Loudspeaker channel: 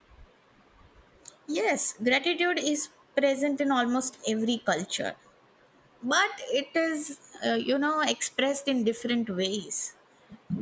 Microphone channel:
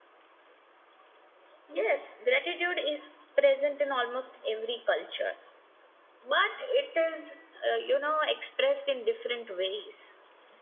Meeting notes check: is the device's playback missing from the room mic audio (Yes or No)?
No